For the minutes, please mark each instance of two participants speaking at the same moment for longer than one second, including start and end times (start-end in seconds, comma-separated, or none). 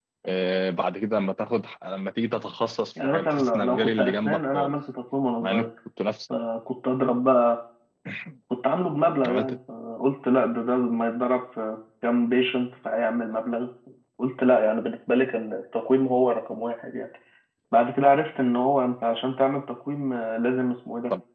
3.0-4.7